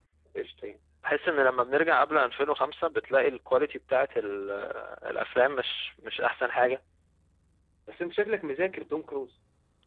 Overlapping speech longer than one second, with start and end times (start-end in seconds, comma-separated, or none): none